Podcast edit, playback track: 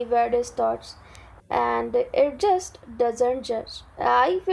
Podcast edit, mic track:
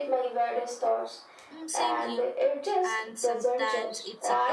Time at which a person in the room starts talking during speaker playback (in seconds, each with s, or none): 1.5 s